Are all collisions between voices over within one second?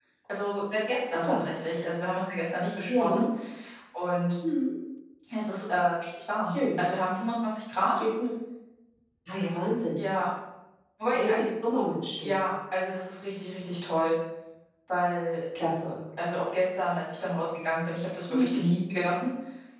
Yes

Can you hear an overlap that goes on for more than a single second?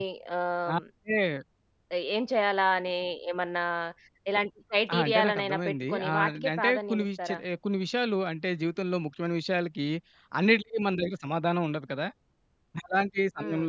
Yes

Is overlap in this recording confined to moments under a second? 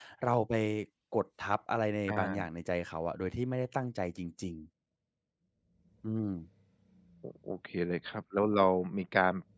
Yes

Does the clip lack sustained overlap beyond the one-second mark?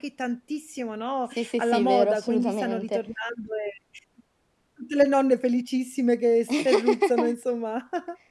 No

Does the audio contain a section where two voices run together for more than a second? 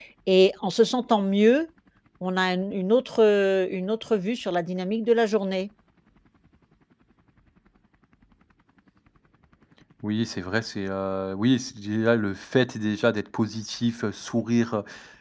No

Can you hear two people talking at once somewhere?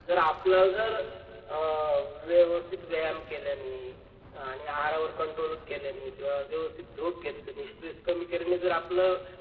No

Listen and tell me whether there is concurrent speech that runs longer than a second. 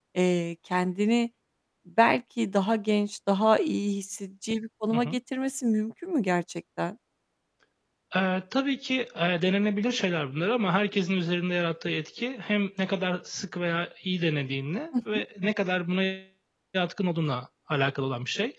No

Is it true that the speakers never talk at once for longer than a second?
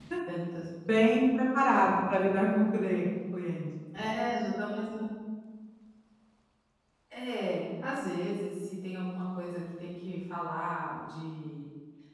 Yes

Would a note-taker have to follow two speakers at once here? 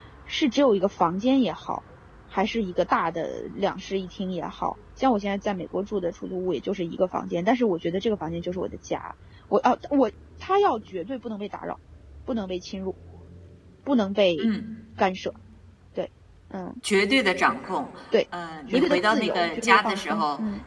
Yes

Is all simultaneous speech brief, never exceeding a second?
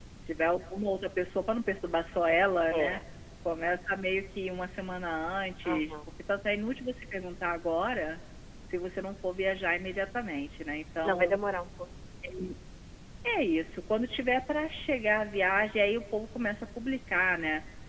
Yes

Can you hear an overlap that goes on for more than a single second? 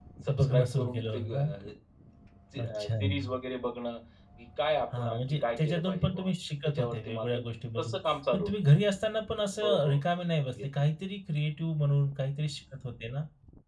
Yes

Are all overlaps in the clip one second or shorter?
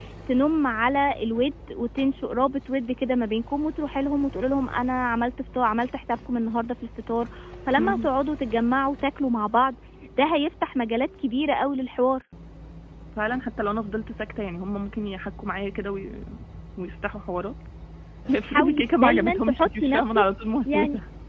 No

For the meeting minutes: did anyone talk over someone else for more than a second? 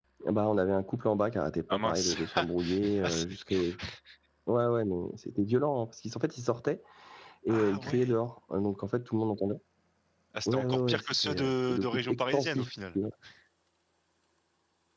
Yes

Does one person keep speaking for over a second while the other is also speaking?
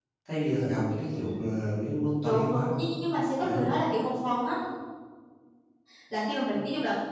No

